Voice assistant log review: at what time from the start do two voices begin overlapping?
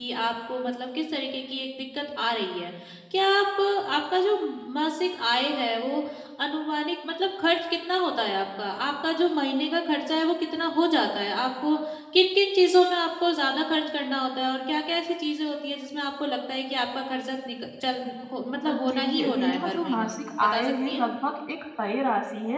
18.6 s

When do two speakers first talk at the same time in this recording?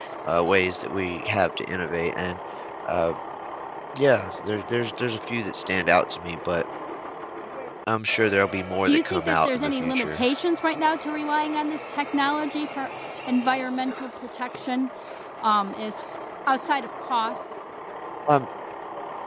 8.9 s

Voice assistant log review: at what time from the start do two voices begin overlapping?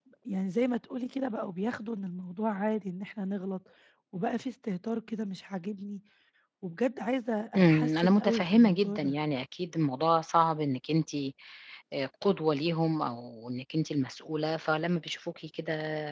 7.5 s

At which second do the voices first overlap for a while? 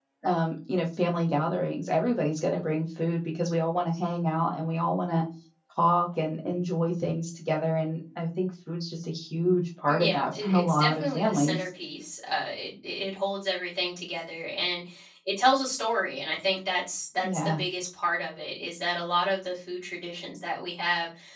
9.9 s

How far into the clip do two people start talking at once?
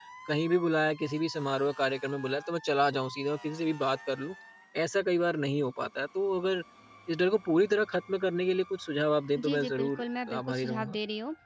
9.3 s

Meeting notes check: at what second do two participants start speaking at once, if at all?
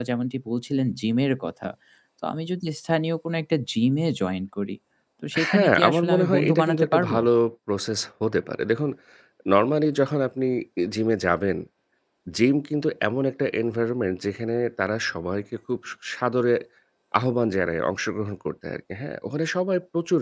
5.5 s

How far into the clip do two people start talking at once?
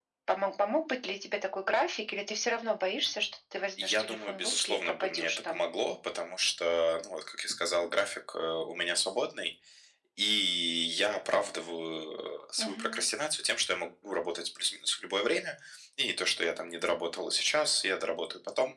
3.8 s

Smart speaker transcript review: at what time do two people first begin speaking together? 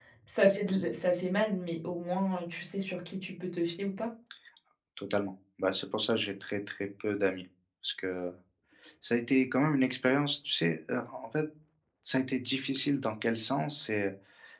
none

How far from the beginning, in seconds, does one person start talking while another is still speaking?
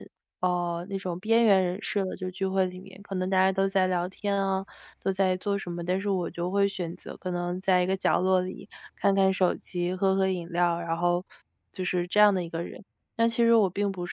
none

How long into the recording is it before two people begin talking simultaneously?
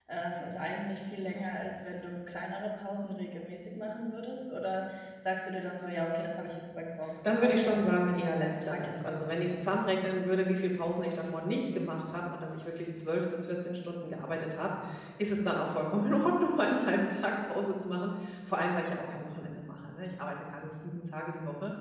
7.2 s

